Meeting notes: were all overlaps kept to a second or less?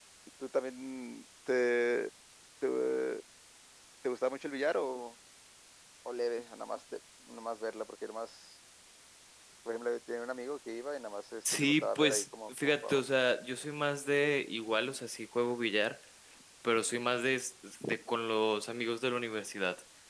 No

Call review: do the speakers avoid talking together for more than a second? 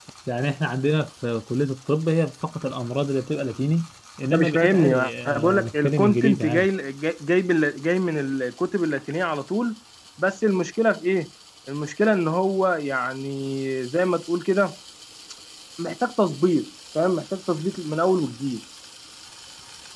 No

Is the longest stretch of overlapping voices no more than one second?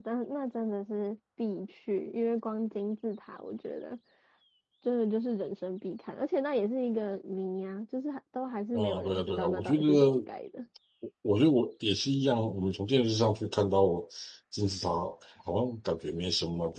No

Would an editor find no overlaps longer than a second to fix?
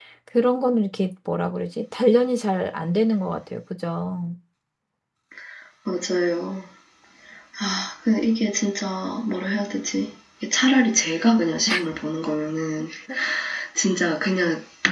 Yes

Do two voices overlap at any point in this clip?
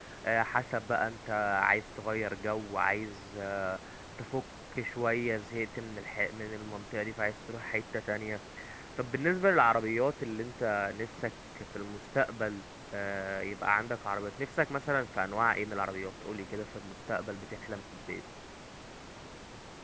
No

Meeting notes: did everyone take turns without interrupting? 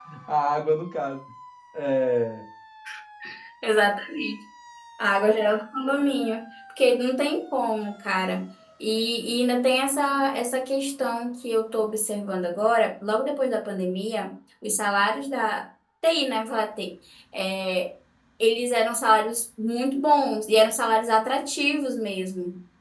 Yes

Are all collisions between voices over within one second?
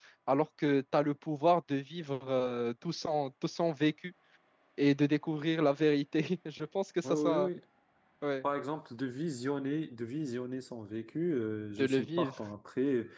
Yes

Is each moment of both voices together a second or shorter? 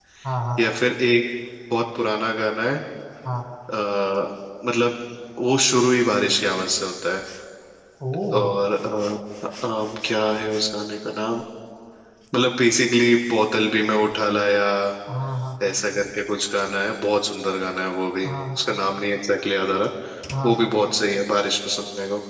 Yes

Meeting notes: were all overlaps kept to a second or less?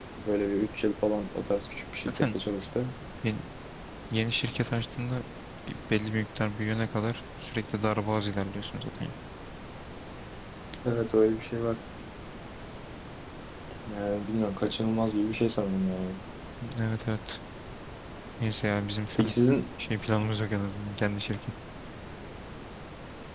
Yes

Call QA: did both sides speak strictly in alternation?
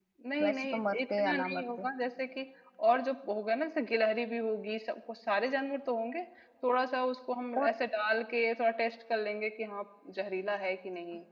No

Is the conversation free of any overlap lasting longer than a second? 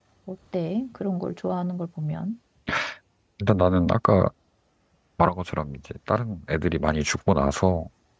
Yes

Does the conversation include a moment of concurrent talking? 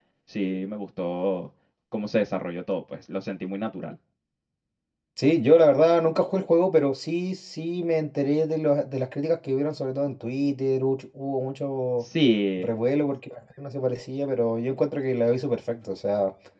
No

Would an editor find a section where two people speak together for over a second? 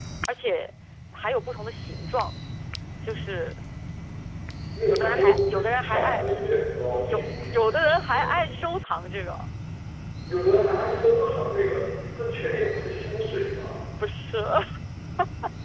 Yes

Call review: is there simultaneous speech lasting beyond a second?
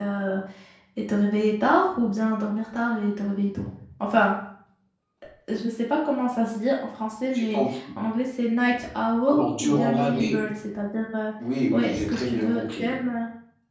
Yes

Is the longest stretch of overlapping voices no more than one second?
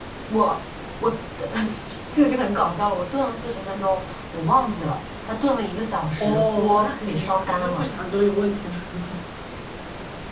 No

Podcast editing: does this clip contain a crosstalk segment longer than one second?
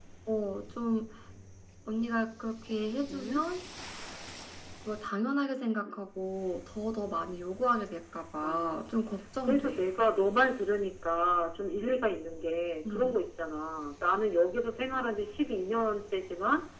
No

